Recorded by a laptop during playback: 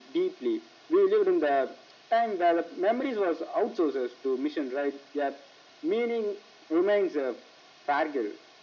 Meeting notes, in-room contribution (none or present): none